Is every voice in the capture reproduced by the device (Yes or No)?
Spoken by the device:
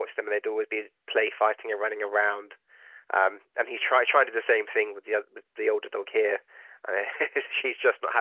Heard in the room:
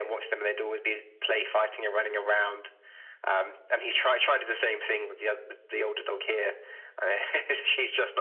Yes